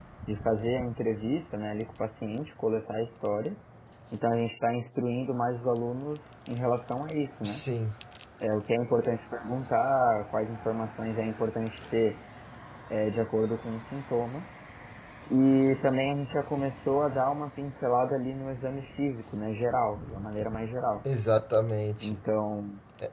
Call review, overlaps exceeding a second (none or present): none